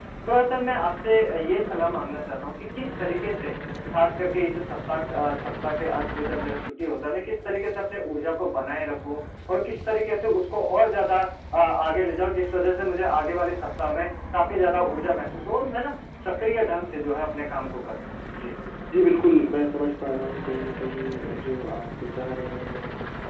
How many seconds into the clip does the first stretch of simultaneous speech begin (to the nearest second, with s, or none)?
none